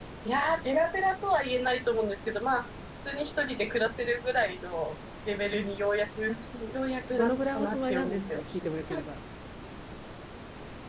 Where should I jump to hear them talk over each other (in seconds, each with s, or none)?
7.1 s